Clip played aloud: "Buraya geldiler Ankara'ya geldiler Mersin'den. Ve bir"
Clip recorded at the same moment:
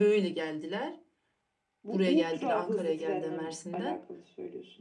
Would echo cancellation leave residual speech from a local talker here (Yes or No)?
Yes